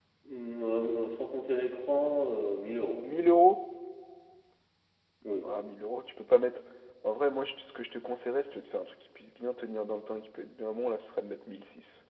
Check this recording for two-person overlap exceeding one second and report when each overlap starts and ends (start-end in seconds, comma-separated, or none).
none